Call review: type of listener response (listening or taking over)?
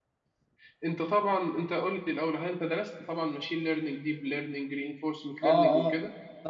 taking over